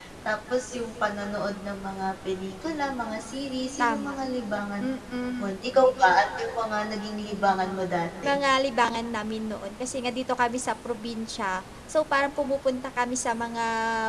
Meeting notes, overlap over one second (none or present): none